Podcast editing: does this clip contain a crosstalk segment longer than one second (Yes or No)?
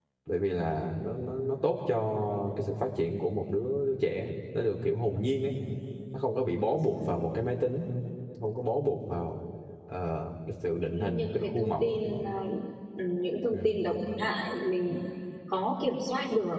Yes